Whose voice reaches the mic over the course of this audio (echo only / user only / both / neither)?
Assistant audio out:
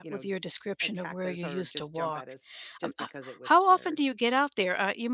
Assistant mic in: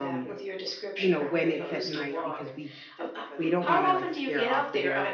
both